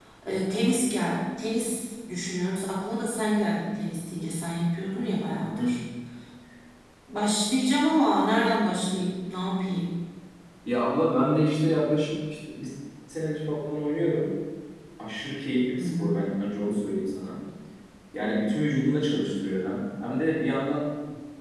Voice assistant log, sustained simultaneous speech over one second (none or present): none